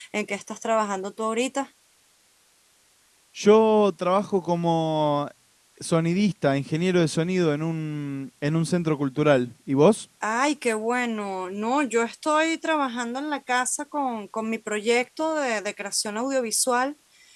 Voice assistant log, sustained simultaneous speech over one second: none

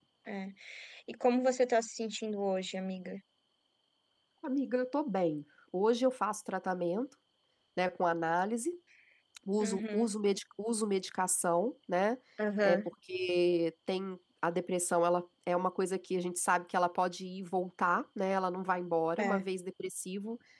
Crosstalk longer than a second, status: none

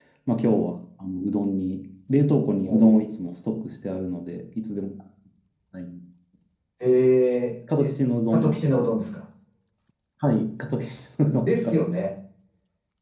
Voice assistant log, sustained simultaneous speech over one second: none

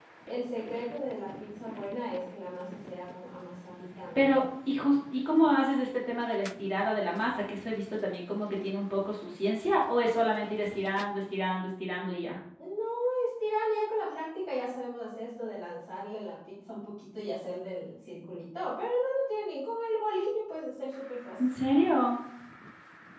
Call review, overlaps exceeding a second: none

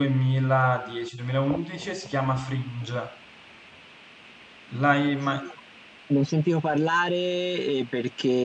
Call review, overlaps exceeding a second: none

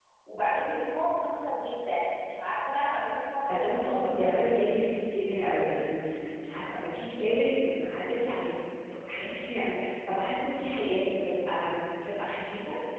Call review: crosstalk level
present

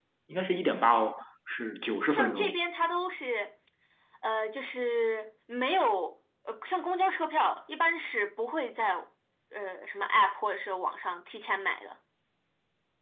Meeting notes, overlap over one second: none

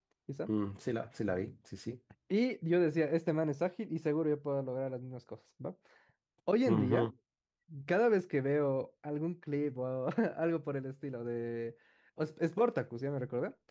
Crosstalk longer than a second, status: none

